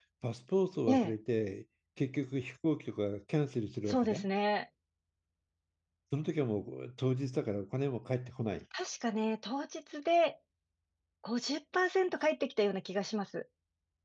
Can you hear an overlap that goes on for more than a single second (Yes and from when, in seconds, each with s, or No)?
No